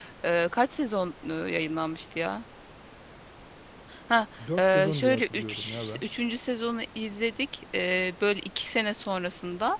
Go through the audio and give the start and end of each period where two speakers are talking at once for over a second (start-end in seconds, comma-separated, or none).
4.6-6.0